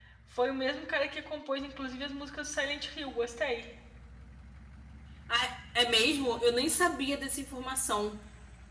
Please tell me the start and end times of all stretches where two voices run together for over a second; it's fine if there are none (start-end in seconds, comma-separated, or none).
none